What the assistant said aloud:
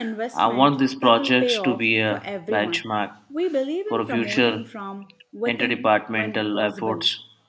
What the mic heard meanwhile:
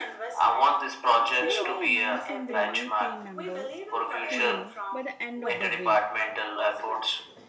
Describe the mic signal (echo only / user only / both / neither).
both